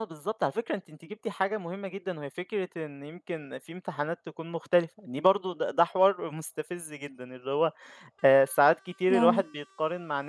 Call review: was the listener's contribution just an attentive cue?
Yes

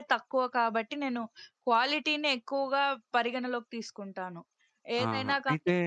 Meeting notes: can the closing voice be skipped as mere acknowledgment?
No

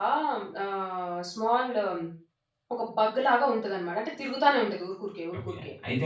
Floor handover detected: Yes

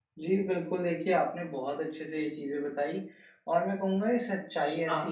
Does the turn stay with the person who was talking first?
Yes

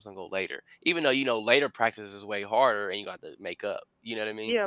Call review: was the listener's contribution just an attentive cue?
No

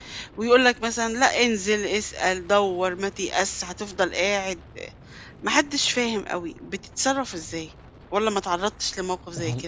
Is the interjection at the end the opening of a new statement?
Yes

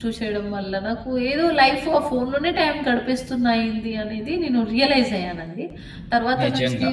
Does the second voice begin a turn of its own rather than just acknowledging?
No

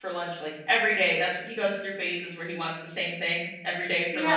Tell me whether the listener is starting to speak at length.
Yes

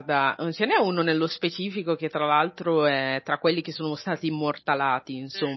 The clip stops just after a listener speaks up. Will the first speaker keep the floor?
Yes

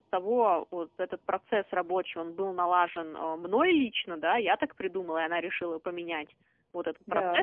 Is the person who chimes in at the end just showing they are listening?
Yes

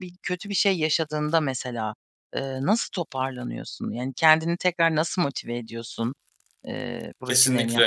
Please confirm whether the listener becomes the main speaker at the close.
Yes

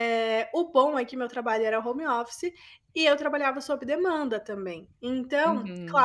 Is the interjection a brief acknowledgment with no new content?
Yes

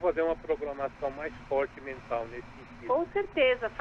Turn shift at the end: Yes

